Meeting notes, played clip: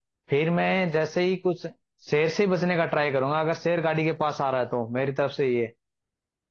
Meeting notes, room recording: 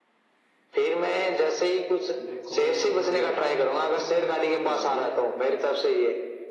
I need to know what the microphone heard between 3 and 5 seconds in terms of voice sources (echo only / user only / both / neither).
both